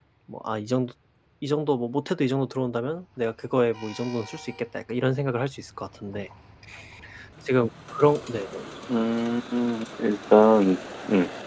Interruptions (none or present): none